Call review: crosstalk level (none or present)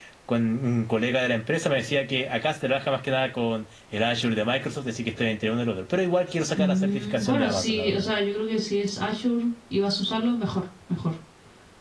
present